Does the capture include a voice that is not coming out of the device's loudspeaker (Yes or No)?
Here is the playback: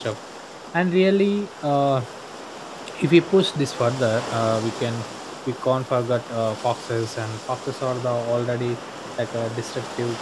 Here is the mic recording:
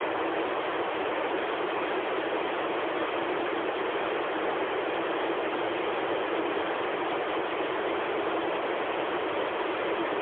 No